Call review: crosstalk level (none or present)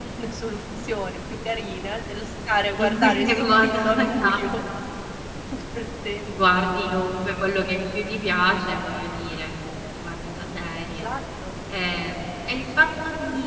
present